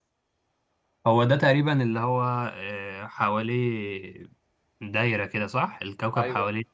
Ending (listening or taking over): listening